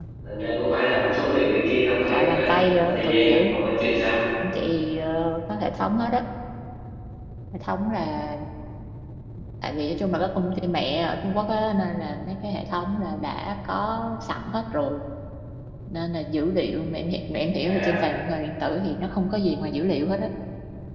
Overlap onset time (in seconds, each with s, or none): 2.1 s